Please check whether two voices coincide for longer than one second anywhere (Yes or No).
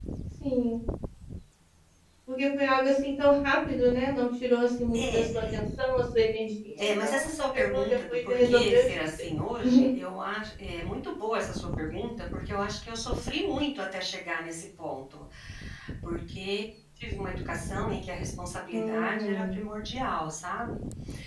Yes